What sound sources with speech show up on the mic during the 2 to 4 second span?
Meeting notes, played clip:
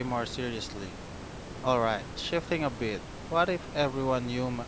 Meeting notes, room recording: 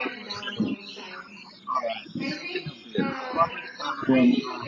both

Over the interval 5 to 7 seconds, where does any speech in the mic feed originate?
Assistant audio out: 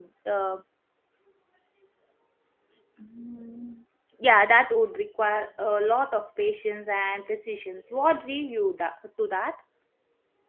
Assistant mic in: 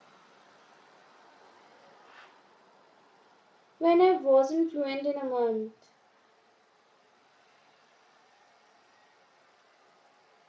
user only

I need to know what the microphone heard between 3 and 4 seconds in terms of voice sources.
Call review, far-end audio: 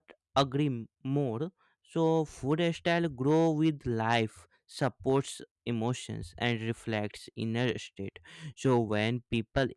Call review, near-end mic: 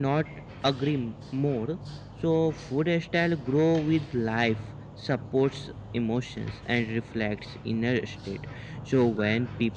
echo only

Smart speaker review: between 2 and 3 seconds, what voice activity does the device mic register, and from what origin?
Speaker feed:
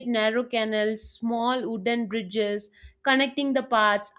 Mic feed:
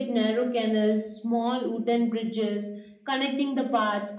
echo only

